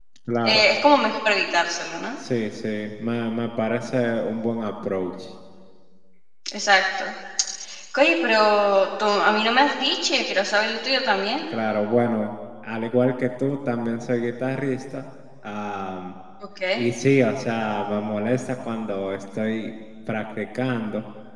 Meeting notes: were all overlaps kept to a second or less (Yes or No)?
Yes